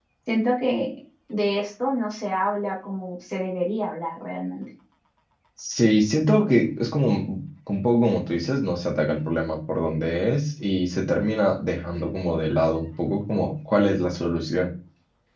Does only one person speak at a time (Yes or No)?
Yes